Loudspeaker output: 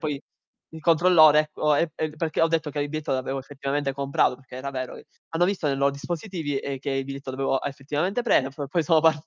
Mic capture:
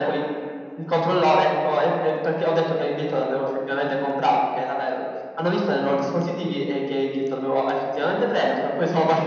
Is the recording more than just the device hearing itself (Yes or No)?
No